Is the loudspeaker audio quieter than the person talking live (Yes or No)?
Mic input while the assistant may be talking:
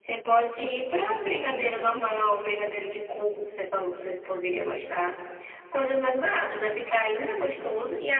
No